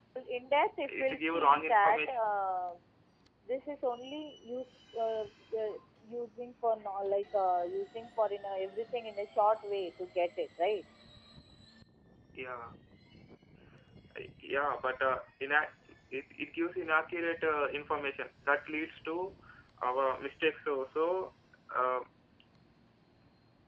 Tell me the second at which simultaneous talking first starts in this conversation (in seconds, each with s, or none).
0.9 s